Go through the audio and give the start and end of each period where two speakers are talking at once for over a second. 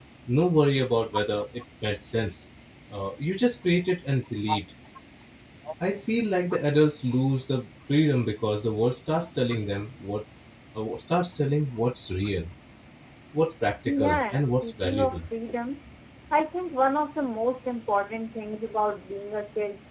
13.9-15.2

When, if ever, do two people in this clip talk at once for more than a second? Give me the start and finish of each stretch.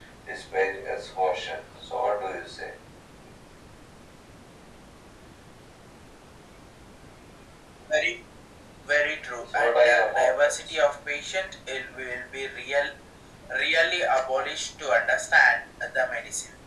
9.5-10.8

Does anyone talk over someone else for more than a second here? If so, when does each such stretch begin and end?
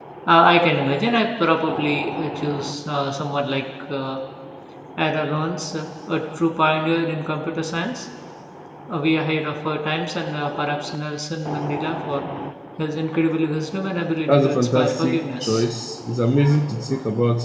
14.3-15.6

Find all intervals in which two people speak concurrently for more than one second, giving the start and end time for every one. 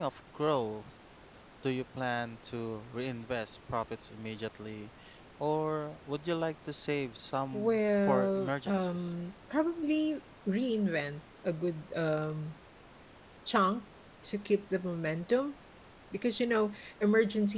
7.5-9.1

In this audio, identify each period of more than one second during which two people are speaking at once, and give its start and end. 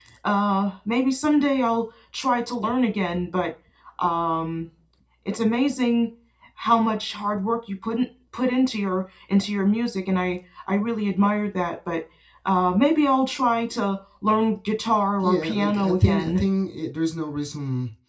15.2-16.4

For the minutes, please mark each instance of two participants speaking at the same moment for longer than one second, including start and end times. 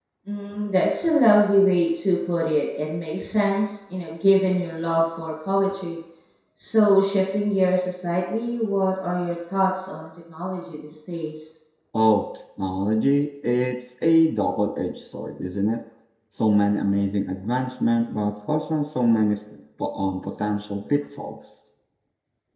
none

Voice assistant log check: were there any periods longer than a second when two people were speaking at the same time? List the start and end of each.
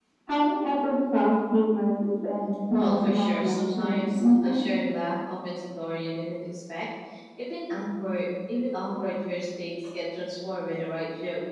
2.7-4.6

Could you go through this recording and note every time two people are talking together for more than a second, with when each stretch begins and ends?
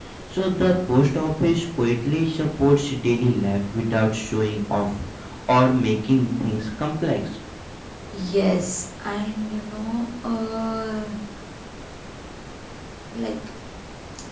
none

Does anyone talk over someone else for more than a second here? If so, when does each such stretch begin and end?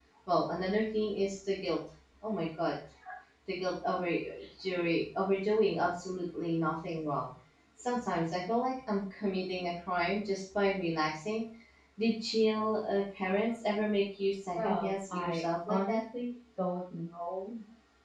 14.6-16.0

